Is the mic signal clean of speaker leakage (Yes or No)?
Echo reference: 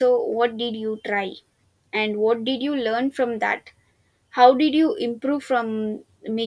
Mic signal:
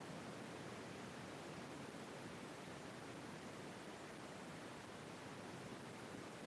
Yes